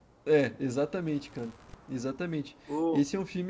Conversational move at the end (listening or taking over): listening